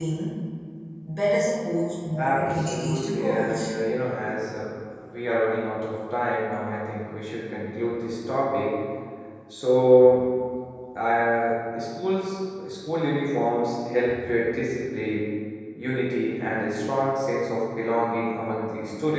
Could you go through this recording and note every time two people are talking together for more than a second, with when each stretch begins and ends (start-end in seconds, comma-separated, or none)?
2.2-3.7